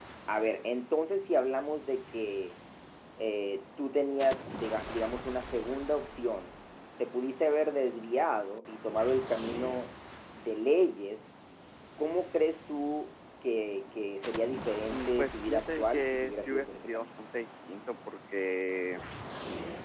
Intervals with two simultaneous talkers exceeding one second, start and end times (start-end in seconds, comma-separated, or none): 14.9-17.0